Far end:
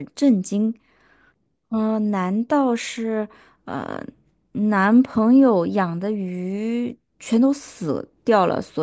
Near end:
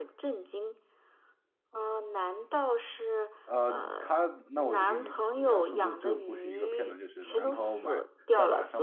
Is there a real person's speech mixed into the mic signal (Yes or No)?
Yes